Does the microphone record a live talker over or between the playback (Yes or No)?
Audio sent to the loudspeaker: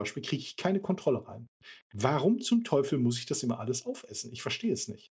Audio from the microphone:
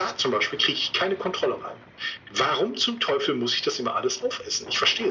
No